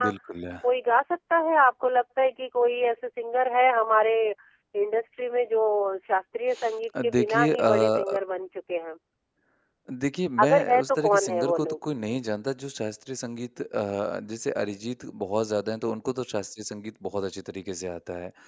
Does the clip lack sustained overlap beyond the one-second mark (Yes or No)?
No